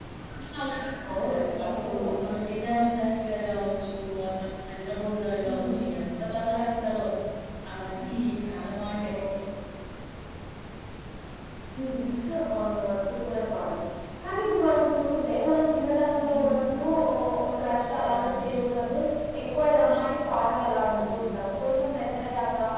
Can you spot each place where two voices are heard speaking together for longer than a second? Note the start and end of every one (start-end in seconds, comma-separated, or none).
none